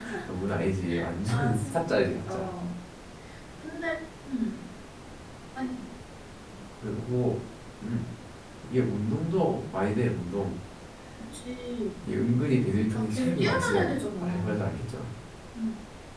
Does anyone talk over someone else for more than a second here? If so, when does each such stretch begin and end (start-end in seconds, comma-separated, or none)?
1.3-2.5, 12.9-14.6